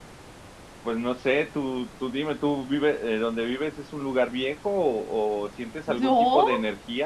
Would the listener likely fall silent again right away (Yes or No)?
Yes